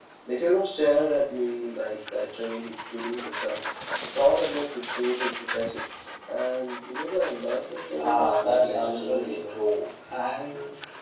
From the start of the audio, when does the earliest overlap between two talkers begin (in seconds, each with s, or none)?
7.9 s